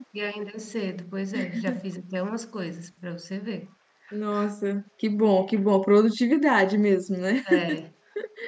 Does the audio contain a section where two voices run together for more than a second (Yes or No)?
No